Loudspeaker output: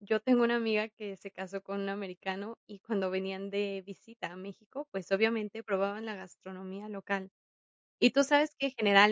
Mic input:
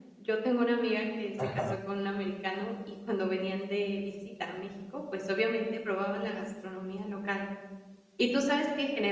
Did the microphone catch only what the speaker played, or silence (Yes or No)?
No